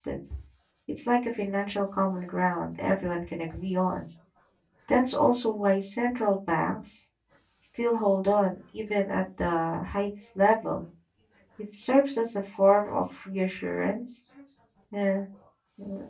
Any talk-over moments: No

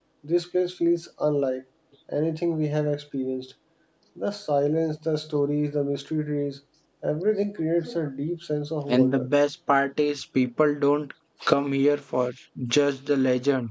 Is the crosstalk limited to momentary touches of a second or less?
Yes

